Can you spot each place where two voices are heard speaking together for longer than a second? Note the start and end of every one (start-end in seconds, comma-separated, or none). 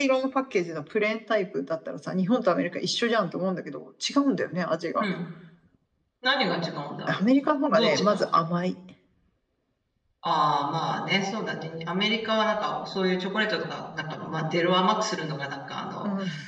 none